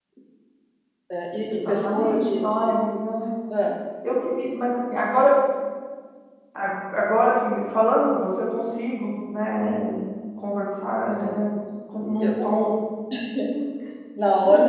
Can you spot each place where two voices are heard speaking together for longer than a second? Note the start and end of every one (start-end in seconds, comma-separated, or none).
1.5-2.8